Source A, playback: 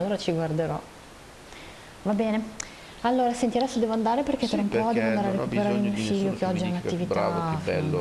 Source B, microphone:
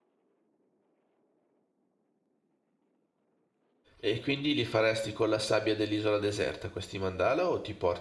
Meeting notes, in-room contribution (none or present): present